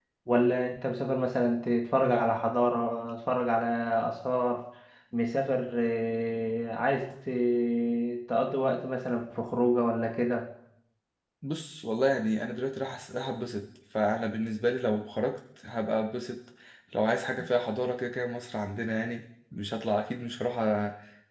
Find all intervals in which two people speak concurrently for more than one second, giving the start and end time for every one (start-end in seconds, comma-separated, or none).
none